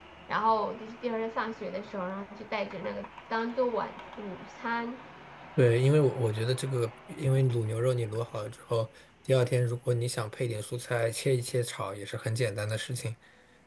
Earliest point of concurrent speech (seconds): none

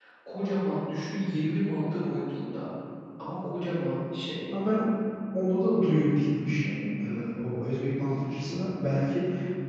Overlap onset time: none

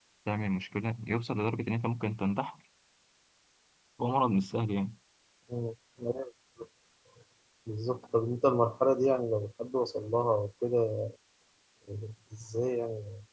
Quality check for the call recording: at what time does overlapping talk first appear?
none

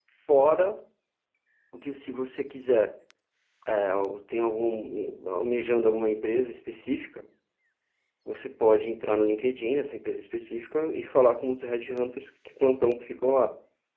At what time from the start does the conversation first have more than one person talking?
none

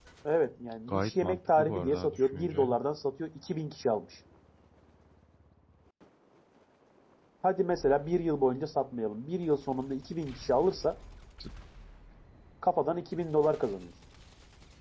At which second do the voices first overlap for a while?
0.9 s

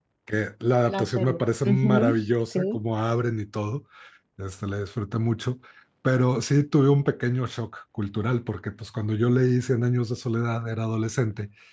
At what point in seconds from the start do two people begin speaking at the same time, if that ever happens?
0.9 s

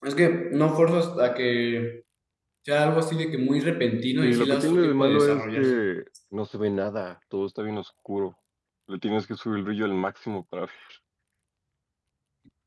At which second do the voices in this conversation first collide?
4.2 s

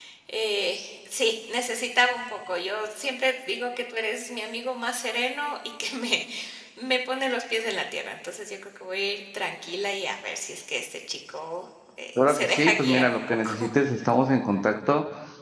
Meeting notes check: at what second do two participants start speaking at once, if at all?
12.2 s

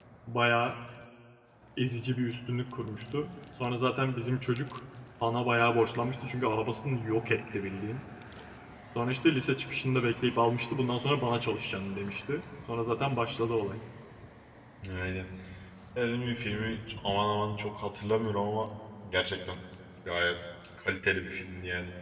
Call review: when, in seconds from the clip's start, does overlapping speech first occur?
none

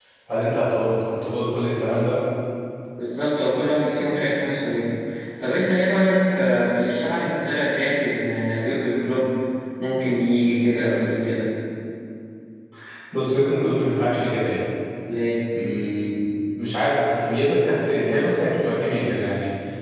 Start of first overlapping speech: none

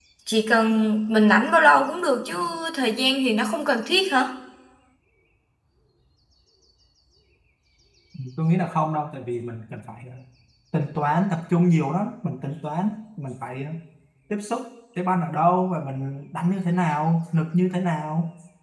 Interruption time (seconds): none

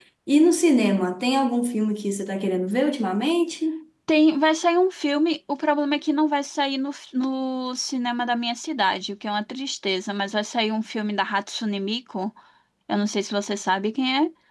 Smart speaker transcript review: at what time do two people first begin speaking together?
none

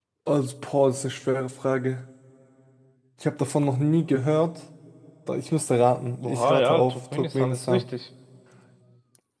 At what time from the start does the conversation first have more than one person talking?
6.2 s

